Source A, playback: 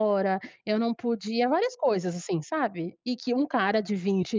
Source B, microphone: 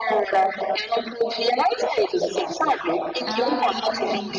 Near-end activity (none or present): present